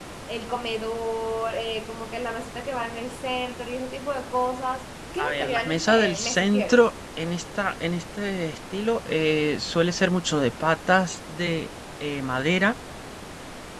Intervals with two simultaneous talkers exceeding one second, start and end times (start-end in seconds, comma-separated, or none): 5.2-6.8